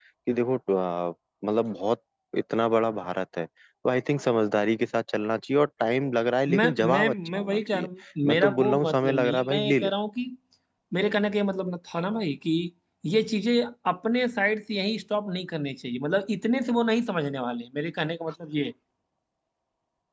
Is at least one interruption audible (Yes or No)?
Yes